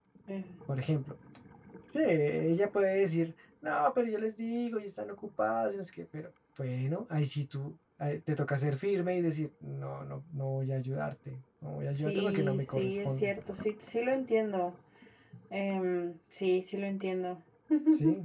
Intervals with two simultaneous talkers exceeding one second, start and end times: 12.0-13.3

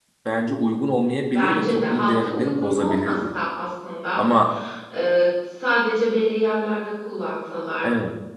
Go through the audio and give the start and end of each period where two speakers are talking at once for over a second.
1.3-3.2

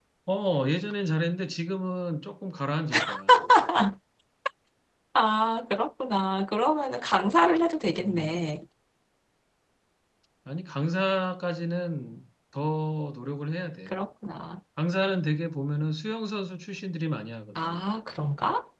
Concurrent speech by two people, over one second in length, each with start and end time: none

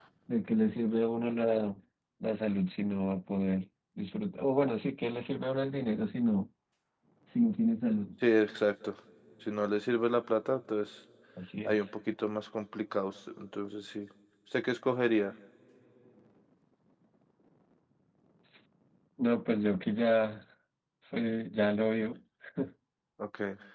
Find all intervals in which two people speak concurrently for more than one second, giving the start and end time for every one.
none

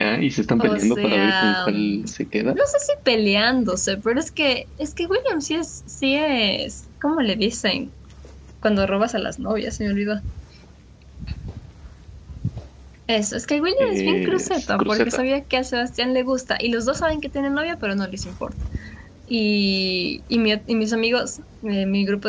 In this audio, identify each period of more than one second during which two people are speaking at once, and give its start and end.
0.6-2.0, 13.8-15.2

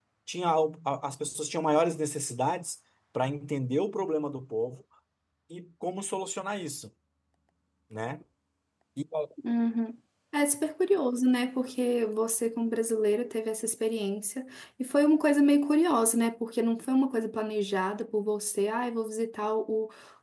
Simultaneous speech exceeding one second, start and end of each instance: none

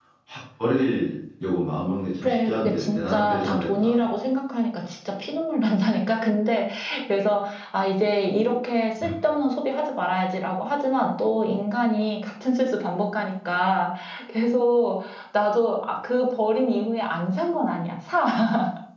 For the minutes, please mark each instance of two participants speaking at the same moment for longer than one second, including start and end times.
2.2-4.0

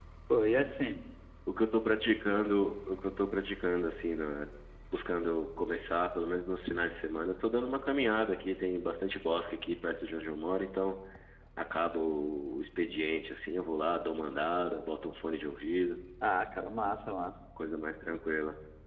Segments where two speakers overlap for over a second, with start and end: none

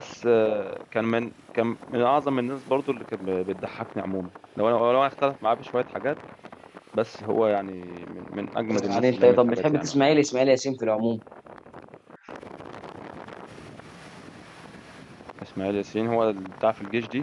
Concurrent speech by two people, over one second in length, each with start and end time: 8.9-10.1

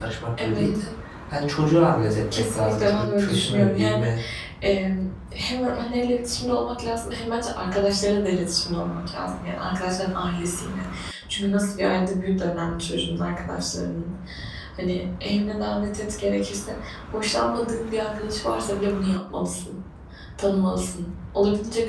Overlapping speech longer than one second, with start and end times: 2.3-4.1

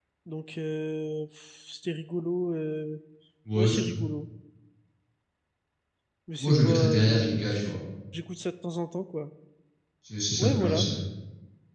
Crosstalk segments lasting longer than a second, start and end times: 6.4-7.7

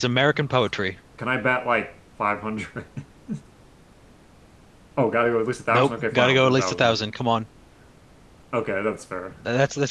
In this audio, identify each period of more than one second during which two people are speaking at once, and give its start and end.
5.7-7.0

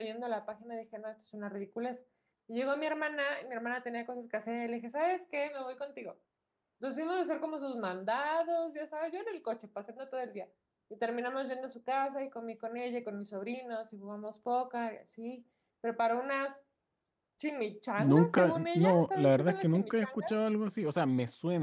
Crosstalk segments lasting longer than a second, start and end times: 18.0-20.4

